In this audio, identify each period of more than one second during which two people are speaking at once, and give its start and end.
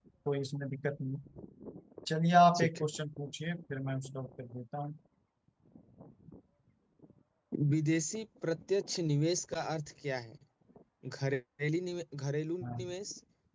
none

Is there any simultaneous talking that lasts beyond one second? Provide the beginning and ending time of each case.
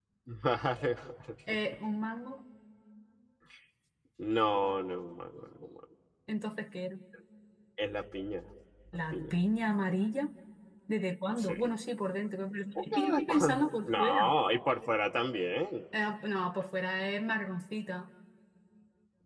12.8-14.3

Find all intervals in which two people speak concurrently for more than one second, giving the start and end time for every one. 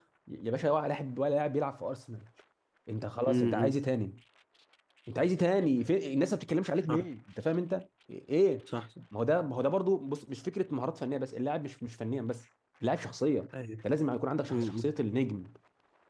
none

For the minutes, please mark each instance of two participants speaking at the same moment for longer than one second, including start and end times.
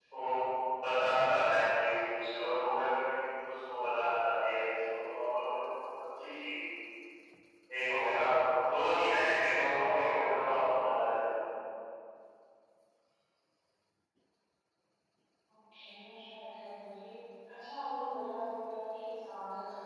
none

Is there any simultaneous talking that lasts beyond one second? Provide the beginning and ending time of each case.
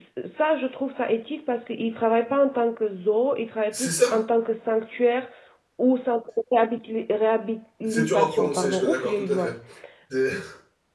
7.8-9.5

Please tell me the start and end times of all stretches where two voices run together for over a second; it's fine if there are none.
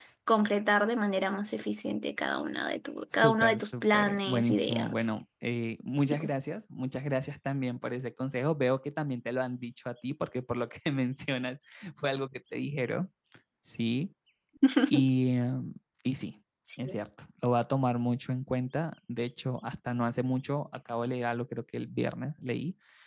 3.1-5.1

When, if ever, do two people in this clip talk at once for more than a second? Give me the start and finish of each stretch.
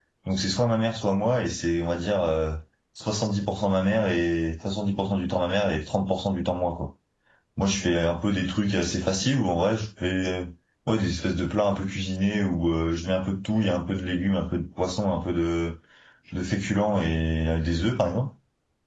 none

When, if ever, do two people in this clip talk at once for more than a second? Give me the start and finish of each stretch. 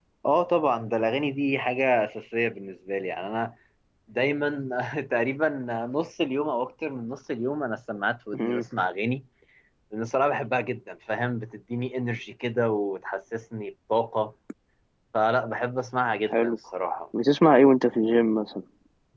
none

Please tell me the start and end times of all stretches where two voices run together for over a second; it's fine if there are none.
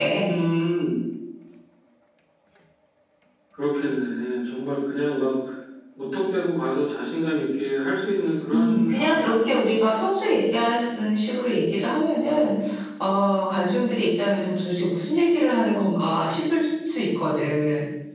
8.5-9.8

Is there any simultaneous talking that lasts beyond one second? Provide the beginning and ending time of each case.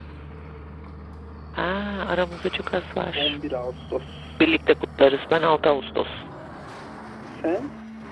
none

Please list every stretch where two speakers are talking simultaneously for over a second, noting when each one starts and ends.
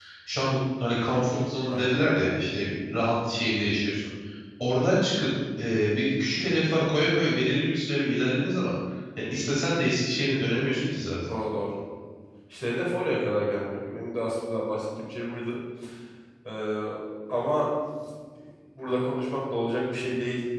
none

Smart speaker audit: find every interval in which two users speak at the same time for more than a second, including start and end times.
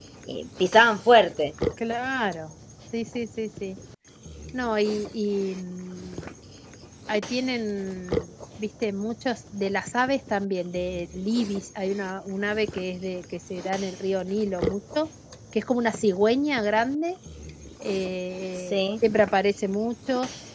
none

